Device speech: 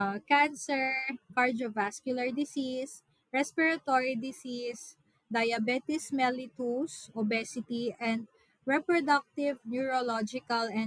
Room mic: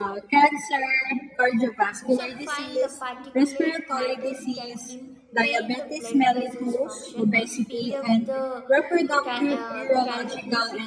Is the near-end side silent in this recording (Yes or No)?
No